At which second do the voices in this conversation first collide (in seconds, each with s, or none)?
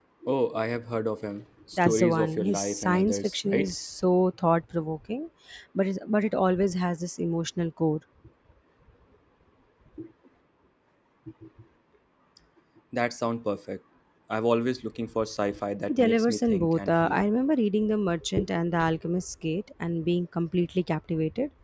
1.8 s